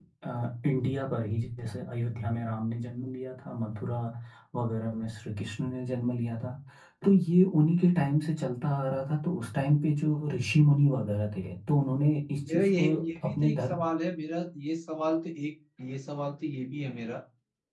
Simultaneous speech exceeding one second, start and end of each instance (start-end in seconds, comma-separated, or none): 12.5-13.8